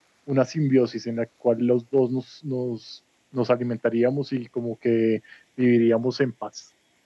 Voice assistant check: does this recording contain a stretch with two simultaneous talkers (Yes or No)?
No